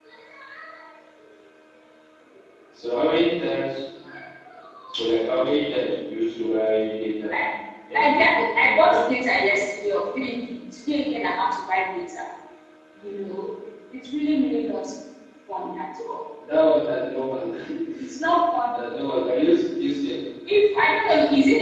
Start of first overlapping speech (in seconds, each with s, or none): 7.9 s